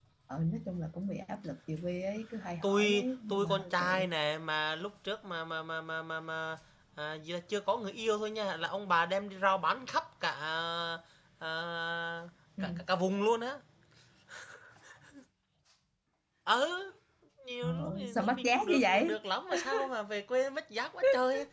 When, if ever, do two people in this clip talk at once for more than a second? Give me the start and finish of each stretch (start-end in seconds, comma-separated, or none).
2.6-4.1, 17.6-19.2